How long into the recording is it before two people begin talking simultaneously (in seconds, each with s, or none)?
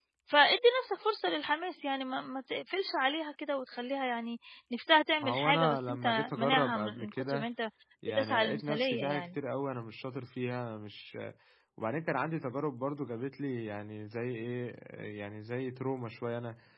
5.2 s